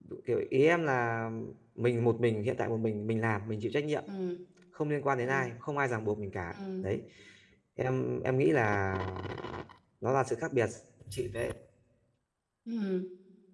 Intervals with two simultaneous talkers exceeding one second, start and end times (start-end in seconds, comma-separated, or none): none